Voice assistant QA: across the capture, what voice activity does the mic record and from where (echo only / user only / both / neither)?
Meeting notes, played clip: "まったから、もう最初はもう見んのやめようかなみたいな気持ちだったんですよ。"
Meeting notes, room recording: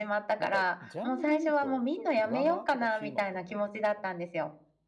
both